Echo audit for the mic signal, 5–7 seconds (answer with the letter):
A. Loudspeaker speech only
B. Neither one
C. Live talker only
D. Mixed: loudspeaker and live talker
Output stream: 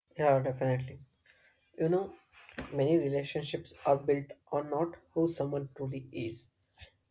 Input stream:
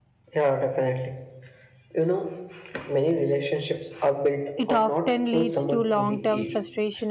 D